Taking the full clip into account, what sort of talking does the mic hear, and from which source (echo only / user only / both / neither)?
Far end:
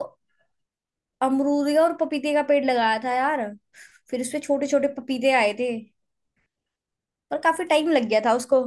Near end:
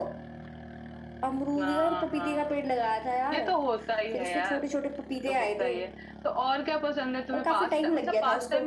both